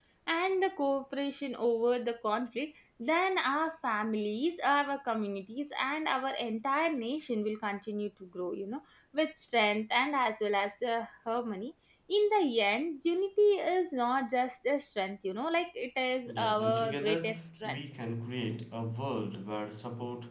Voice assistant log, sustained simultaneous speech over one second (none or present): present